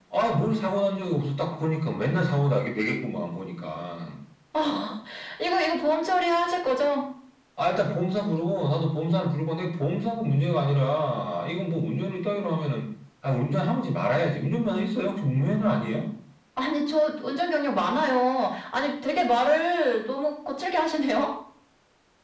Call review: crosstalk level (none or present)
none